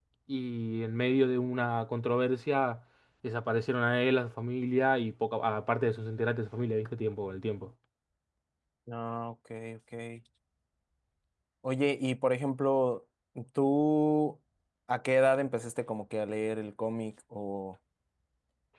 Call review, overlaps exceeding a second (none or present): none